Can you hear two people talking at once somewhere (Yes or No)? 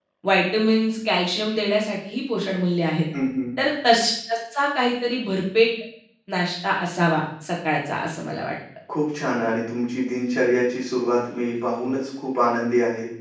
No